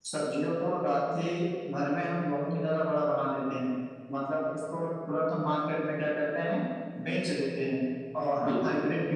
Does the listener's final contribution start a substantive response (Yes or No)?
No